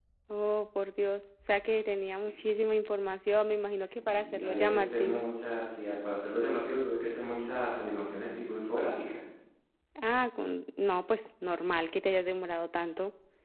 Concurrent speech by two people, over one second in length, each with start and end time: 3.7-5.2

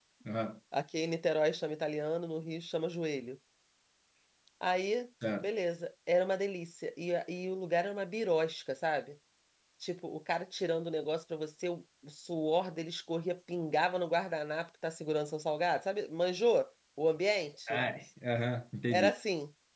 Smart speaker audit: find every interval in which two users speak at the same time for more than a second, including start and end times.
none

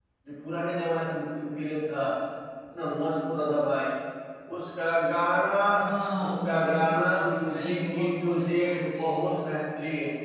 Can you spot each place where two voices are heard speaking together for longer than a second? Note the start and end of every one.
6.2-9.6

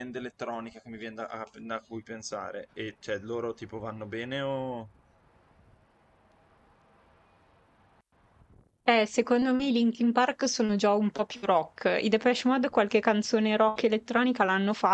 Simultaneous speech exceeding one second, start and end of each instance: none

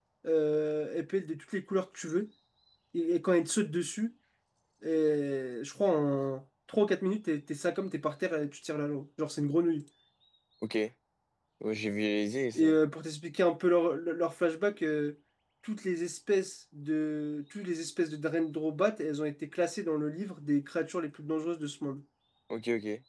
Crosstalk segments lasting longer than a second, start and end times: none

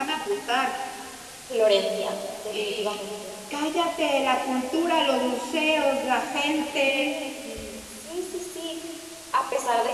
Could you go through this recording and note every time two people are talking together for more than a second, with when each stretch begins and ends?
none

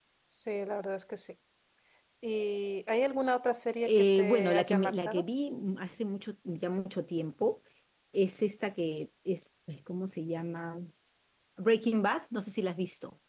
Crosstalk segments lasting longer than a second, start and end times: 3.9-5.2

